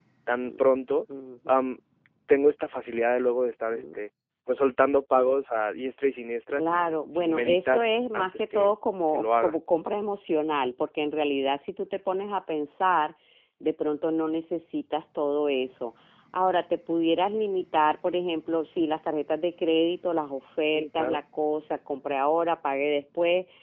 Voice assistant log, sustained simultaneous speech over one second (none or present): present